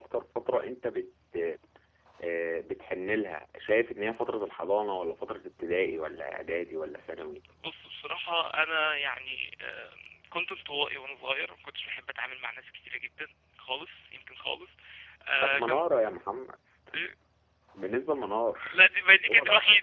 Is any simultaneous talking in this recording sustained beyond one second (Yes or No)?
No